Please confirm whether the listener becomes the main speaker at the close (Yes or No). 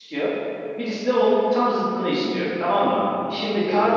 No